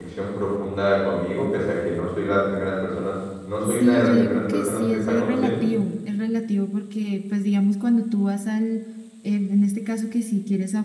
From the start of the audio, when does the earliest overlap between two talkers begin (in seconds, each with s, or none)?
3.6 s